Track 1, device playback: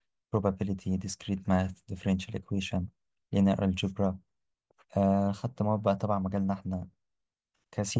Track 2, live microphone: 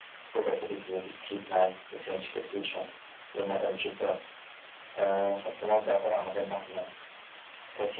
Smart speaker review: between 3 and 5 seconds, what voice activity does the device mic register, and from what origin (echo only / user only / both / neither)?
echo only